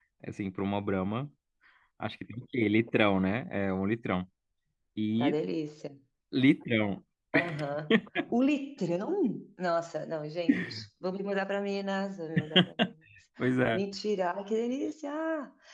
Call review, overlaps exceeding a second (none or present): none